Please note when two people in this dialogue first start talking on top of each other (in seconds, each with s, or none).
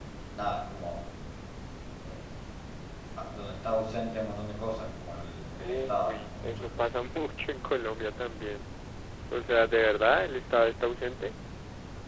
5.6 s